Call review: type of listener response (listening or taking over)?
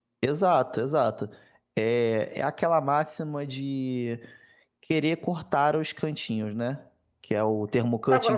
taking over